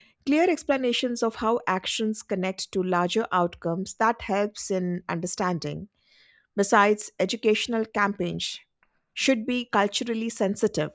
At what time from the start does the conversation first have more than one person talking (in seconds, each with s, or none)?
none